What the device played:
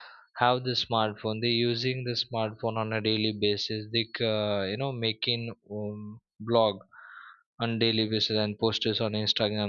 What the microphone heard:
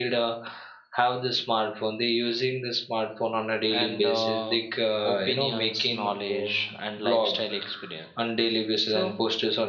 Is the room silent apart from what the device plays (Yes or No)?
No